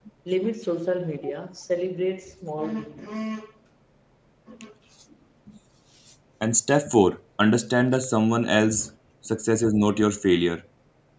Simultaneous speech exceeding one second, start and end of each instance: none

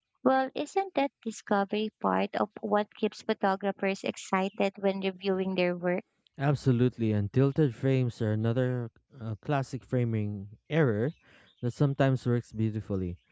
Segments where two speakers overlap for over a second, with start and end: none

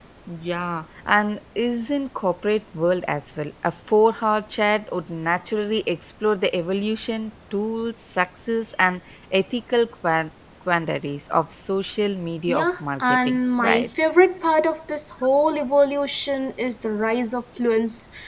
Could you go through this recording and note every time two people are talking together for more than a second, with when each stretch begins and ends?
12.5-13.9

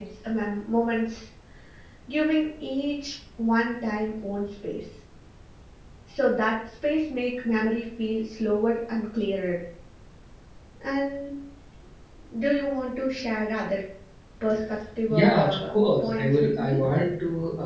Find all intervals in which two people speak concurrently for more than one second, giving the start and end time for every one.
15.1-16.8

